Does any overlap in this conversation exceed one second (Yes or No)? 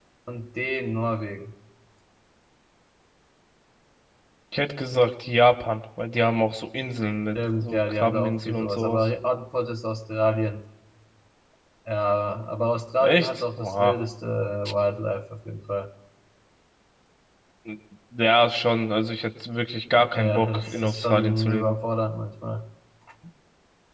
Yes